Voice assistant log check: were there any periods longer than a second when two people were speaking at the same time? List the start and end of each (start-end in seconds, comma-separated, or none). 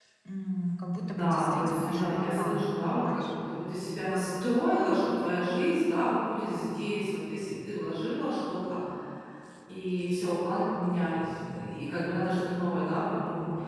1.0-3.3